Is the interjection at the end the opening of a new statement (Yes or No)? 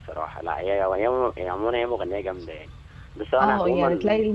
Yes